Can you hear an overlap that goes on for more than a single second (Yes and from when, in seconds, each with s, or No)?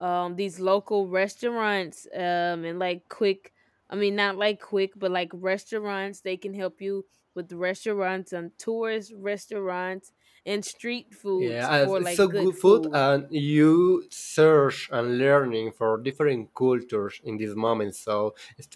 Yes, from 11.4 s